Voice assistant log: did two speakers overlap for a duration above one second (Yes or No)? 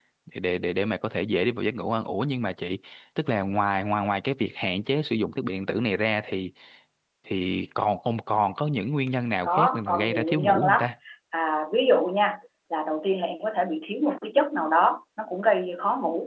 Yes